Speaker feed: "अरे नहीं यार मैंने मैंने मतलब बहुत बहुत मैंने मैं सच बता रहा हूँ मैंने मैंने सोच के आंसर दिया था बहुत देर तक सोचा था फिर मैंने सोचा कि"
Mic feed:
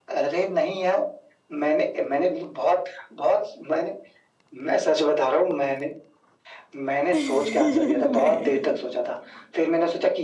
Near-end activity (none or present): present